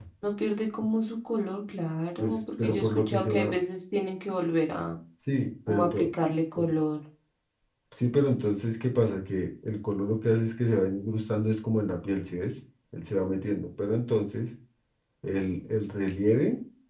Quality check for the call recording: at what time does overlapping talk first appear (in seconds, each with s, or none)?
2.2 s